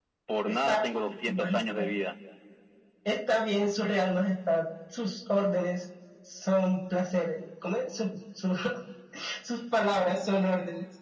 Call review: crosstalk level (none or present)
present